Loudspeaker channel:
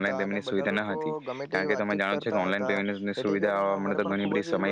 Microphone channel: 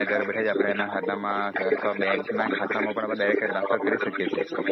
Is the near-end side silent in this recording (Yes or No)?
No